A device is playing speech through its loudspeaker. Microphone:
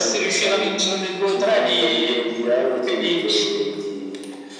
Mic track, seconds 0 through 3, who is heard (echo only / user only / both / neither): echo only